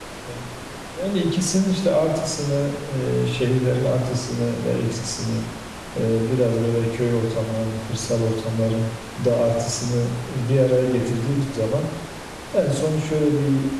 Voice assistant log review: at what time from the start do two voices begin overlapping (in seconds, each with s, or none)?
none